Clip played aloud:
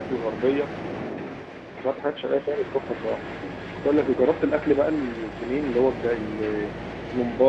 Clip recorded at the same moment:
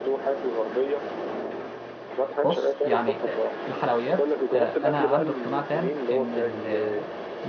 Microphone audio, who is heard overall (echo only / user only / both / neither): both